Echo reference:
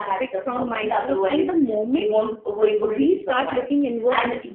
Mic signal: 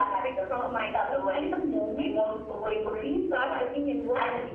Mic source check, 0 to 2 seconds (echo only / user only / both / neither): echo only